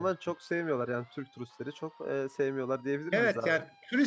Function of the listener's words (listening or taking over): taking over